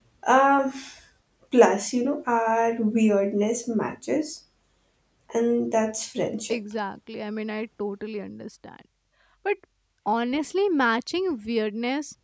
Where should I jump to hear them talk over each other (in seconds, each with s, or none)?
none